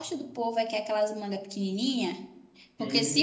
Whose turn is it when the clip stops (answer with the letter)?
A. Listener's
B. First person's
B